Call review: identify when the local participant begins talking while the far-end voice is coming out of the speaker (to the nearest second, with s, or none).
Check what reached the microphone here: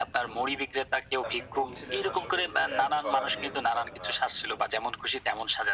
1 s